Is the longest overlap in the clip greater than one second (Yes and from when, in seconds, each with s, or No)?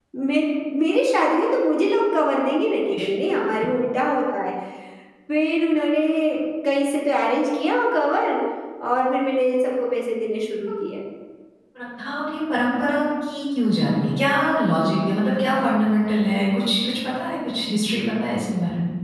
No